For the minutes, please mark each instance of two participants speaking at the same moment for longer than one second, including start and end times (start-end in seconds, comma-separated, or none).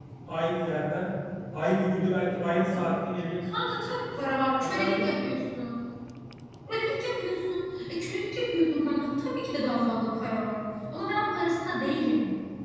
none